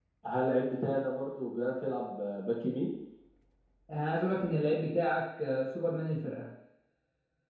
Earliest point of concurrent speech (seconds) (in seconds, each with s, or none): none